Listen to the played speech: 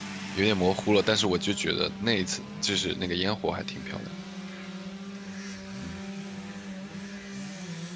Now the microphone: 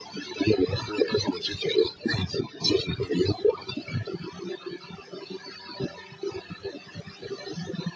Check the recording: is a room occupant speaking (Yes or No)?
No